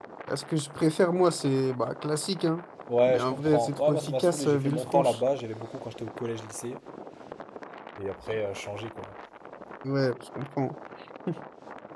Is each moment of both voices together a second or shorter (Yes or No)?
No